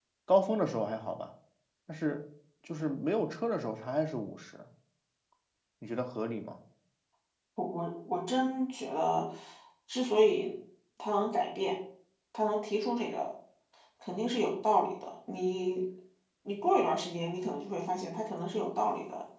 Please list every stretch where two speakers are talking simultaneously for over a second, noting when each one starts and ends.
none

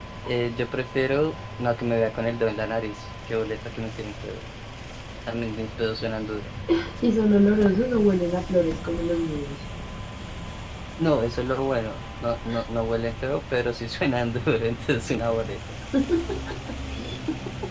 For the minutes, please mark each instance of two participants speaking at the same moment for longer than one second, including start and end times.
none

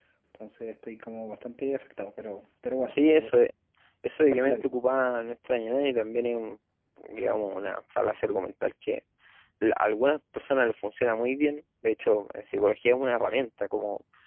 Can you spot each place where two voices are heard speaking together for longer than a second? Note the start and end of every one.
none

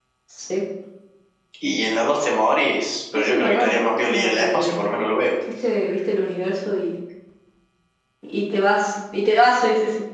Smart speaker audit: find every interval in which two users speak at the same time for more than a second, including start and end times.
3.1-4.8

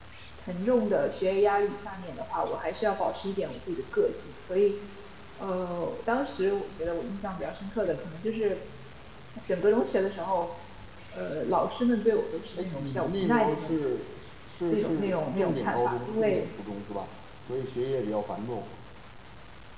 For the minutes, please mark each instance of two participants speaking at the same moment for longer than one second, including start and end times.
12.6-13.8, 14.7-16.4

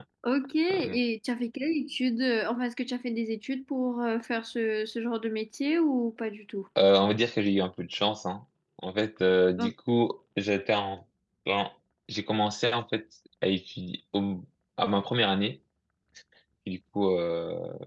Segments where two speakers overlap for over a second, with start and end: none

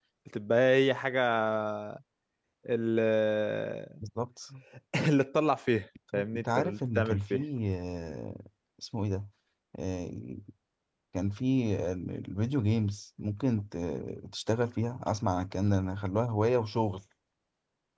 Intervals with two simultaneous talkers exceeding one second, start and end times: 6.1-7.4

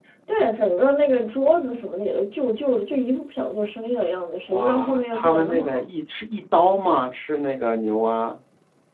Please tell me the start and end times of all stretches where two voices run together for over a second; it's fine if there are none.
4.5-5.8

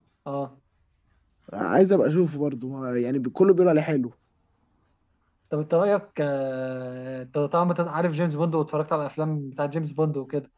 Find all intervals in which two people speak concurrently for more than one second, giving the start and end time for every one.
none

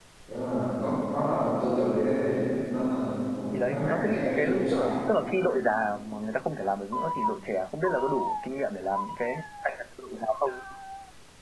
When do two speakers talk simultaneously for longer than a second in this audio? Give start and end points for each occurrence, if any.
3.5-4.9

